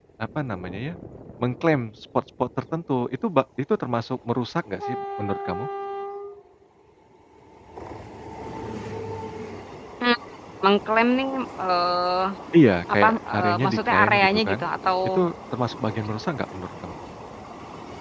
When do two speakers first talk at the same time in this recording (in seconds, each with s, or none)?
12.9 s